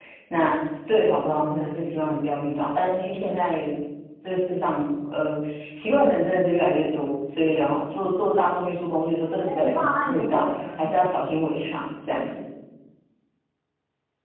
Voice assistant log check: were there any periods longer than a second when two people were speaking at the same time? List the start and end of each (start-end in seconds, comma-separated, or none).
9.4-10.9